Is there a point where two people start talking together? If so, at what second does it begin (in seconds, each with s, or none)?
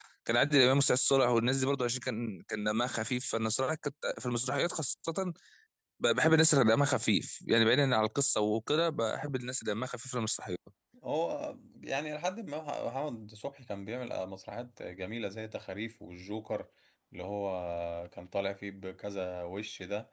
none